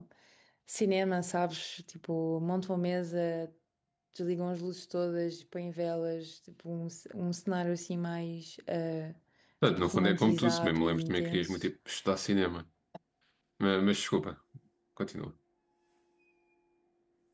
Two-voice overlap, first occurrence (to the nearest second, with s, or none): 10 s